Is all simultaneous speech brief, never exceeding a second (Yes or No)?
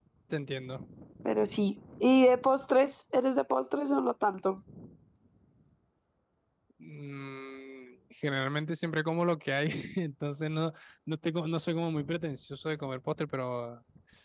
Yes